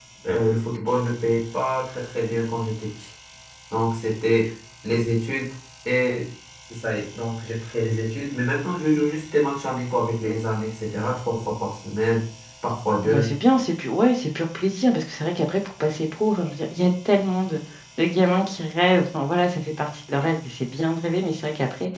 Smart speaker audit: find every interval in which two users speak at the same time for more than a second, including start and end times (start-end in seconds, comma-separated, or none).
none